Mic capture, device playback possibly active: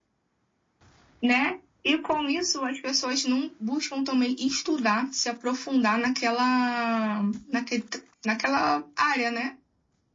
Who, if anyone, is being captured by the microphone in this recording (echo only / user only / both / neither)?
echo only